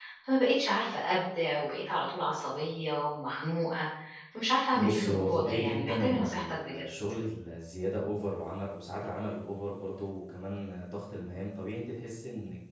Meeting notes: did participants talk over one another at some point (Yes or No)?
Yes